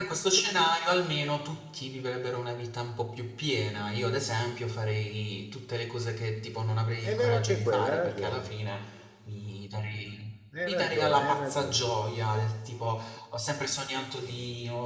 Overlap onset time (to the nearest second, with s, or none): 7 s